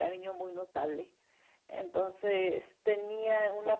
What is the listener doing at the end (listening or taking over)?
listening